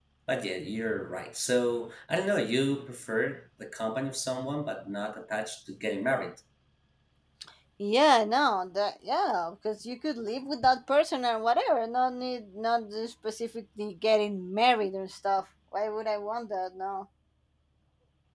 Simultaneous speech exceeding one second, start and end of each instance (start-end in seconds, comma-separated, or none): none